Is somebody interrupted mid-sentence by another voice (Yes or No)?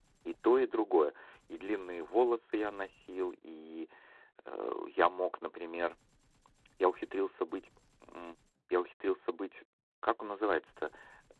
No